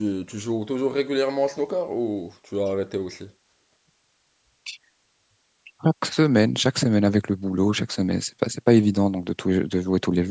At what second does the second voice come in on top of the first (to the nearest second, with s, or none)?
none